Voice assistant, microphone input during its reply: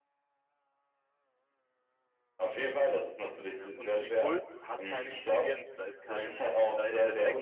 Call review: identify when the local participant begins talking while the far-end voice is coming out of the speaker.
3.5 s

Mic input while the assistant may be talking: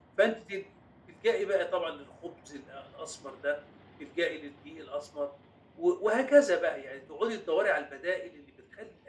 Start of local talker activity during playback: none

